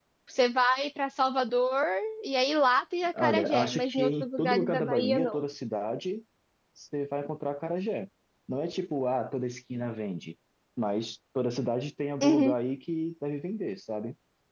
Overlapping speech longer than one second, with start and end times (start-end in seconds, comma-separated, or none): 3.2-5.4